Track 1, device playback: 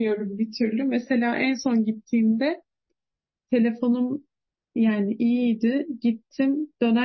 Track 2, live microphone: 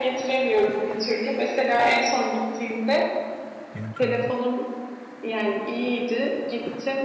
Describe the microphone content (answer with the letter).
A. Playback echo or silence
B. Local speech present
B